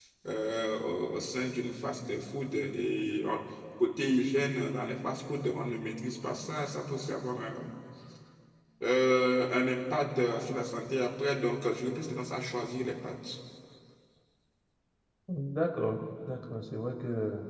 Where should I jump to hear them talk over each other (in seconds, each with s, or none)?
none